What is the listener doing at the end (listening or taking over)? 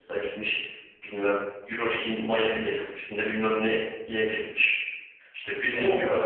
listening